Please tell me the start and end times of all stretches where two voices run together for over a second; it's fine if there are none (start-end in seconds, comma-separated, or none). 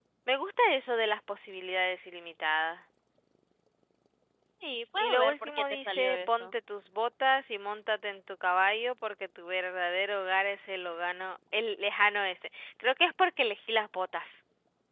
5.0-6.5